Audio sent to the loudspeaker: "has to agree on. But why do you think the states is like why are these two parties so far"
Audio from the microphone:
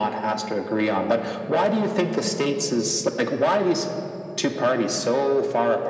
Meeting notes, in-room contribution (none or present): none